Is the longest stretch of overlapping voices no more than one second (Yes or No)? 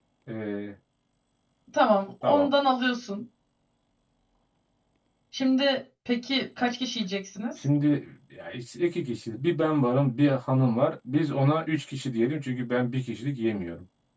Yes